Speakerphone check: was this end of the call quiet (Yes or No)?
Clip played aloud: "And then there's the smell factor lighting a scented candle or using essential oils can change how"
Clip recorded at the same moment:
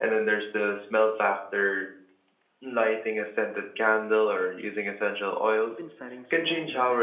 No